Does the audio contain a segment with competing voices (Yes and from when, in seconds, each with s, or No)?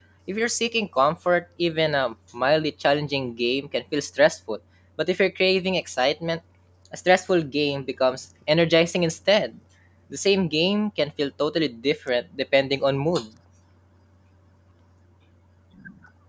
No